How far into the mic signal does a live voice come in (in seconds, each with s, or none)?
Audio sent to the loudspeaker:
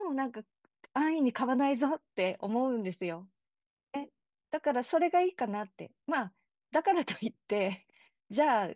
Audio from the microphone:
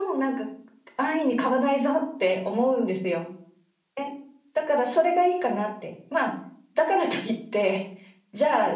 none